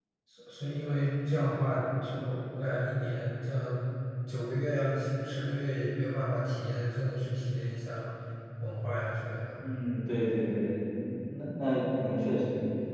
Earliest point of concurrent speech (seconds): none

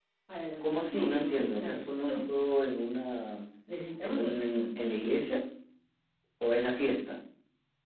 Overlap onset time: 0.6 s

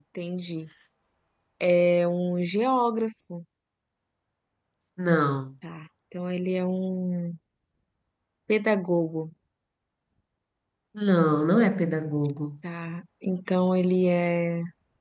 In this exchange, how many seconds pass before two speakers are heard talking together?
none

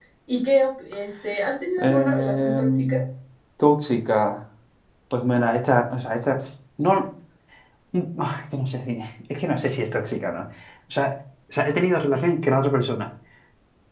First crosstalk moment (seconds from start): 1.8 s

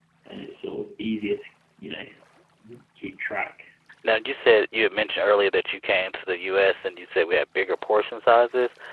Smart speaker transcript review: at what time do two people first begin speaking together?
none

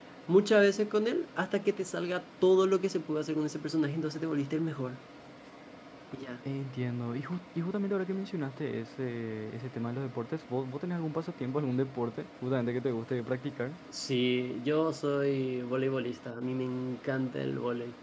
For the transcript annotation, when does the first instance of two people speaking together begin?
none

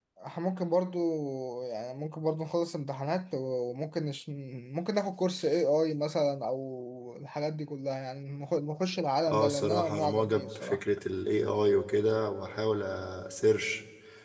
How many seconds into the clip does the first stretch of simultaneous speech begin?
9.3 s

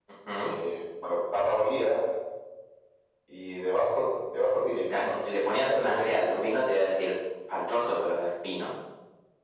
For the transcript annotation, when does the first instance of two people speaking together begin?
4.9 s

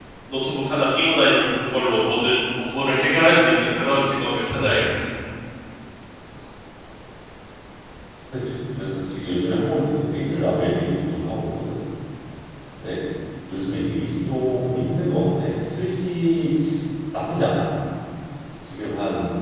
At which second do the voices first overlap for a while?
none

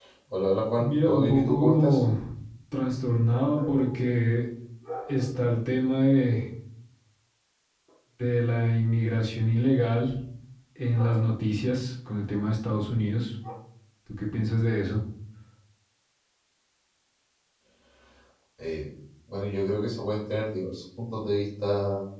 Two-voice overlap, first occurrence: 0.8 s

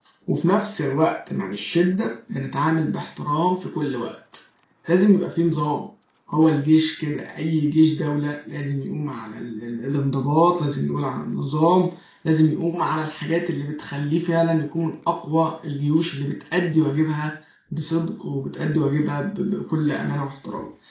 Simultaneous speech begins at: none

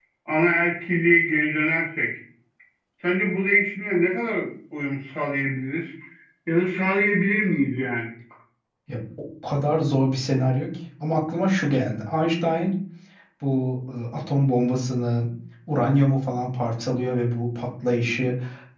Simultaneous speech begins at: none

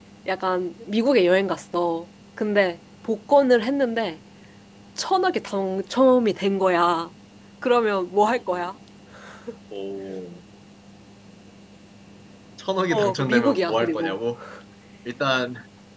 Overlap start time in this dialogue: 12.9 s

